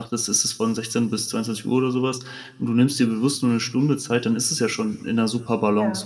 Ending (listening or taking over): listening